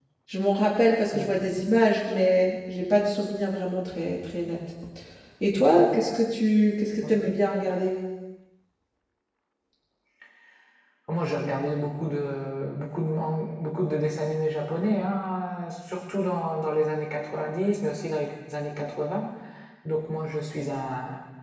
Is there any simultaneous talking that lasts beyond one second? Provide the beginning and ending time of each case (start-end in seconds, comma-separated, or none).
none